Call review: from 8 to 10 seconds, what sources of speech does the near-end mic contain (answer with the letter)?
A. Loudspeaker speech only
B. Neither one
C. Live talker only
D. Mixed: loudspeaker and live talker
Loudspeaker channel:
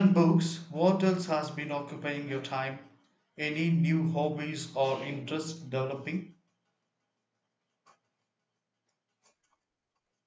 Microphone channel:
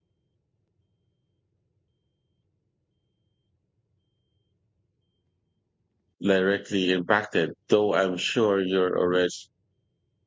C